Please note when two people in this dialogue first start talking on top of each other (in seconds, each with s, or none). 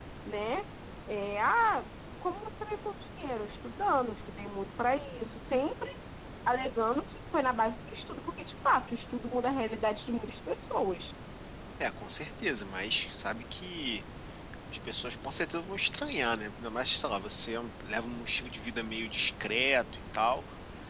none